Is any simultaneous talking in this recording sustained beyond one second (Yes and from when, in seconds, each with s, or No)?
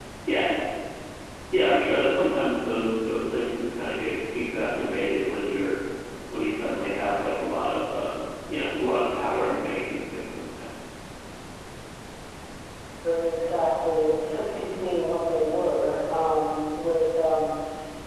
No